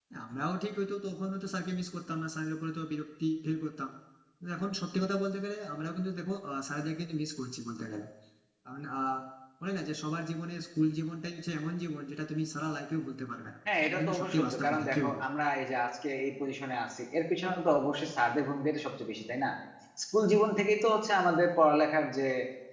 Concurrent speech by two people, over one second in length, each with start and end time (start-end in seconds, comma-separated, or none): 13.9-15.2